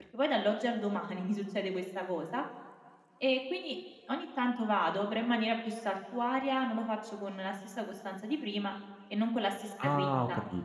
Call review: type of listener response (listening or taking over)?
taking over